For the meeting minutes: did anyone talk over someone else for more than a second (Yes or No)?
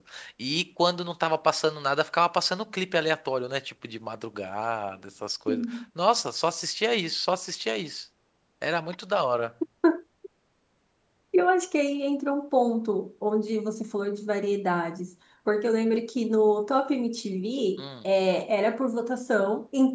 No